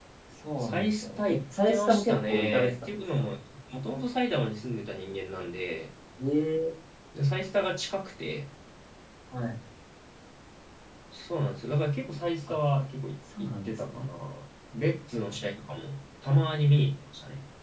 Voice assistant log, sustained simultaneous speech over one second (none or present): present